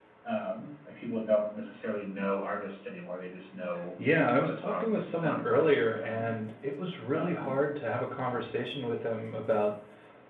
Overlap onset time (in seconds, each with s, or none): 4.4 s